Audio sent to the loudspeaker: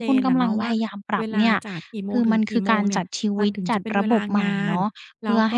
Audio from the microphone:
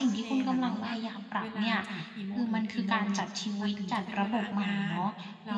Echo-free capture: No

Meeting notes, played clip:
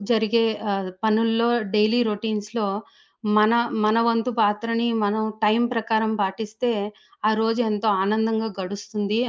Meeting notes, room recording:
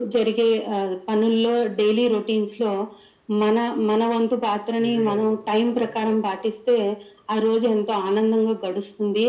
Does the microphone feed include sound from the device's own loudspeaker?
Yes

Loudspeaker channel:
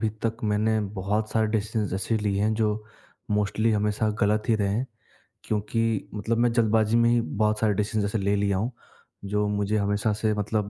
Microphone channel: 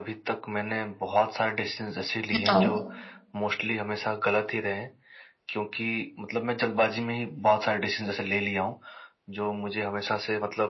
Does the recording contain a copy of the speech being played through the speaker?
Yes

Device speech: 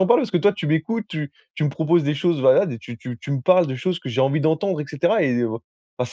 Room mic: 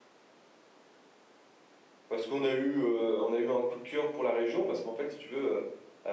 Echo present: No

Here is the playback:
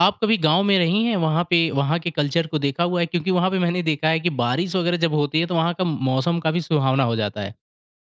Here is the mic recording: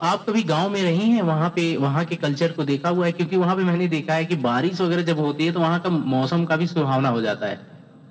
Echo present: Yes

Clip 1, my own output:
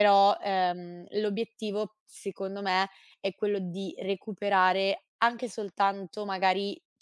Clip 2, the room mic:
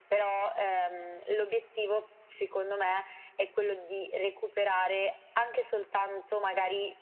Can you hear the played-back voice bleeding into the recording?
Yes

